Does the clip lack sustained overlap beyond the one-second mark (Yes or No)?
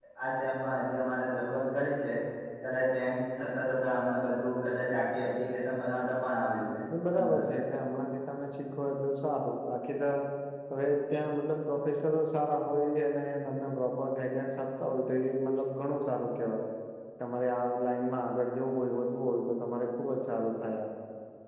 Yes